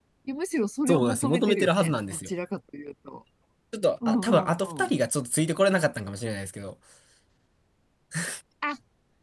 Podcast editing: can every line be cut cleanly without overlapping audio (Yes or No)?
No